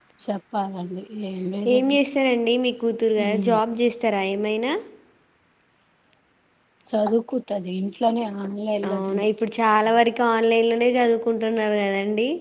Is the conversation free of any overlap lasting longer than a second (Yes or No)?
Yes